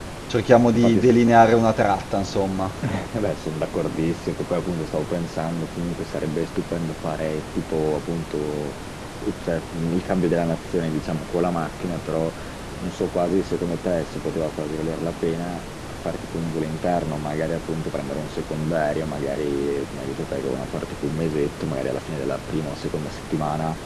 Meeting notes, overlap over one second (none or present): none